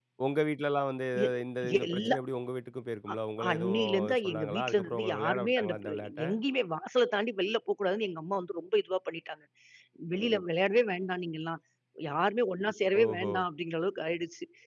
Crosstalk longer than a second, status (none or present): present